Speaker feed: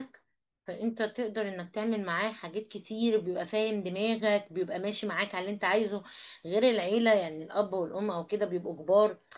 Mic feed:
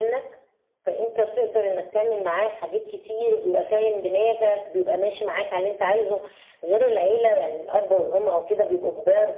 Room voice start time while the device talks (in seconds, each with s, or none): none